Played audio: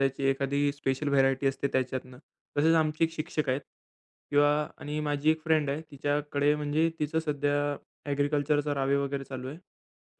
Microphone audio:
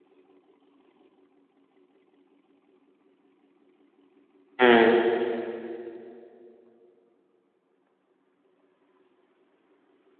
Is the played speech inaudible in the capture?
Yes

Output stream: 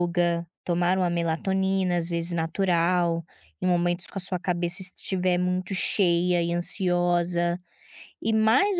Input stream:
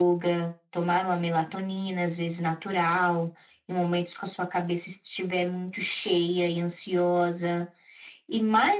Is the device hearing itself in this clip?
Yes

